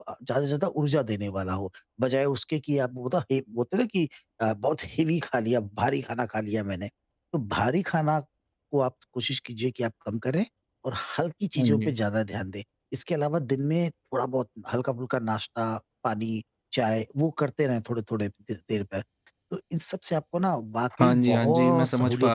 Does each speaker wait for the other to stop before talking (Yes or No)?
No